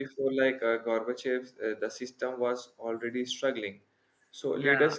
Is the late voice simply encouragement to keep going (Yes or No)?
Yes